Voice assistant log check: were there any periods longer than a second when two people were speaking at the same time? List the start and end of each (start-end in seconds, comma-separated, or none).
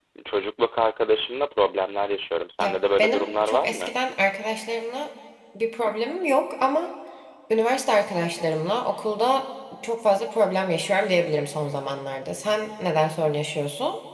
2.6-4.0